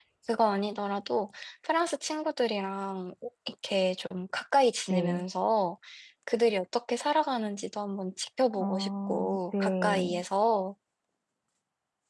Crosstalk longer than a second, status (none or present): present